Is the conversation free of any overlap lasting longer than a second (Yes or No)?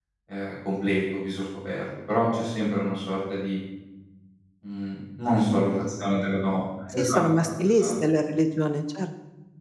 Yes